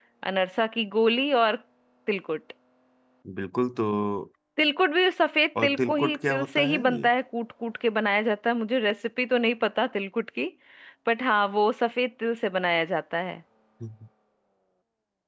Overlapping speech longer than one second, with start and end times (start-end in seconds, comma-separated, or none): 5.6-7.1